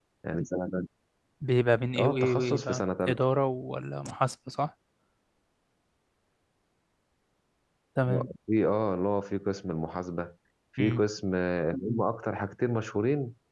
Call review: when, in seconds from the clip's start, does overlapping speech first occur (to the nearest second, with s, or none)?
2 s